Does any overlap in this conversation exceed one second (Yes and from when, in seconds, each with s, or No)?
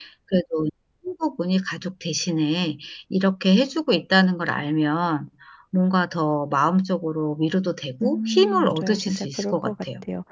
Yes, from 8.0 s